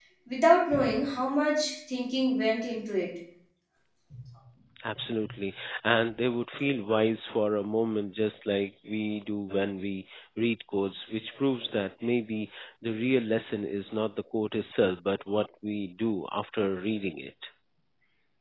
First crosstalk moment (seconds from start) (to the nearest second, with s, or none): none